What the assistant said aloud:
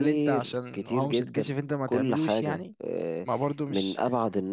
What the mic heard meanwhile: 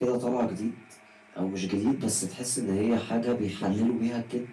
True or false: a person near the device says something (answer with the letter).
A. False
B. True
B